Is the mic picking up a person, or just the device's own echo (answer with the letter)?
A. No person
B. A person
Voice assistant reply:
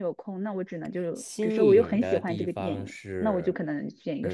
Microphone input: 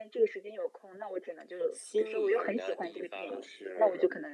A